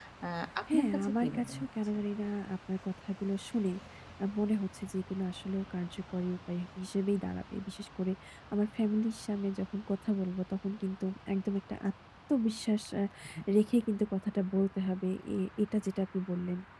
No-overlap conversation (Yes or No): No